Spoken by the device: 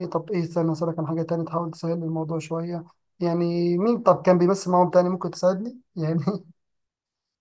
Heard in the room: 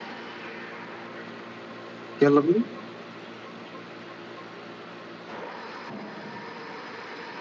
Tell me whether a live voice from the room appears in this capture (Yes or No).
Yes